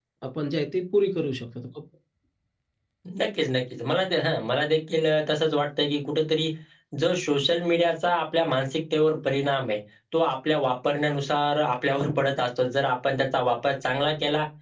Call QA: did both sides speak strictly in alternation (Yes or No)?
Yes